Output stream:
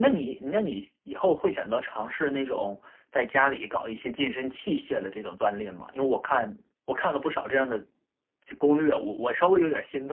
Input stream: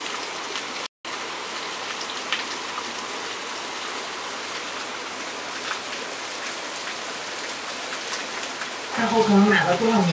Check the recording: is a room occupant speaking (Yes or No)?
Yes